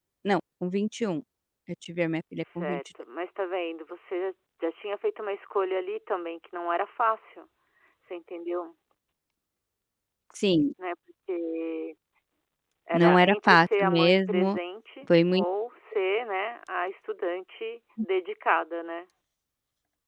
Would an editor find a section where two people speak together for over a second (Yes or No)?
Yes